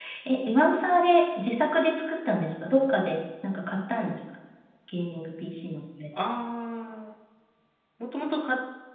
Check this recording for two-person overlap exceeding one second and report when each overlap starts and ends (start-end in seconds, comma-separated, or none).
none